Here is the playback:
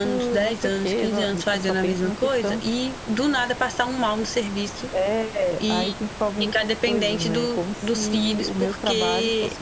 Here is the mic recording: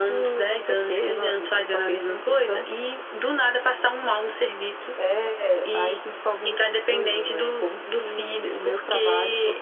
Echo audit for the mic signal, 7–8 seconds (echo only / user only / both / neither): echo only